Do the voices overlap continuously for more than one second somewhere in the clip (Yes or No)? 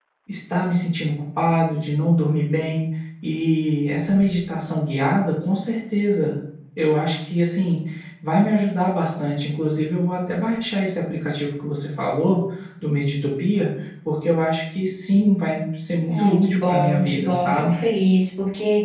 Yes